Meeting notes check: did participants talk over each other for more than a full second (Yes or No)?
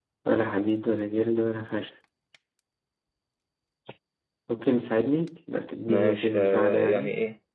Yes